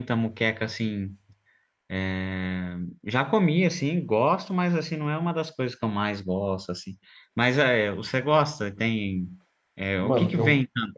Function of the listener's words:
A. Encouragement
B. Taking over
B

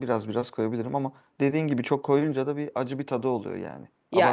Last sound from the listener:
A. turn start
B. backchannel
A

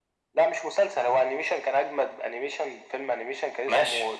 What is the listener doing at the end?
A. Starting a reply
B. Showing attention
B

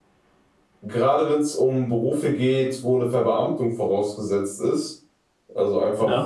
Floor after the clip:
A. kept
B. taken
A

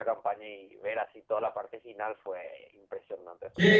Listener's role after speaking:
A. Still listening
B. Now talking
A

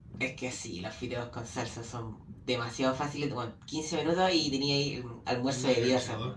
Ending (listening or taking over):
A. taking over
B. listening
A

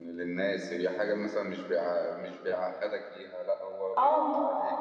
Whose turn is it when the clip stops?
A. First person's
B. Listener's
A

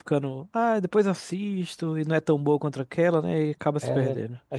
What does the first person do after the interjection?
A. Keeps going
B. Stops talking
B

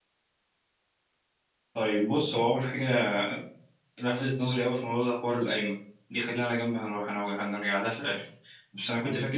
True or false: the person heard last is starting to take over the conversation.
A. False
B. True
A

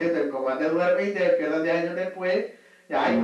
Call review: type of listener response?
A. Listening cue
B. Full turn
B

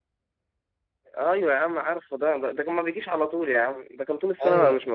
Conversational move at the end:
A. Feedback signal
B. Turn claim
B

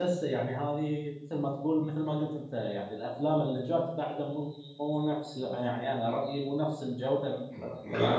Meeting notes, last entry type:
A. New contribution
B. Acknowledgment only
A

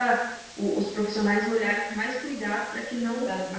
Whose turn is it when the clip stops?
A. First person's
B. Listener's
A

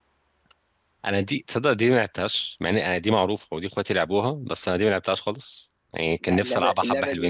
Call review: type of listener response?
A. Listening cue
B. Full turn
B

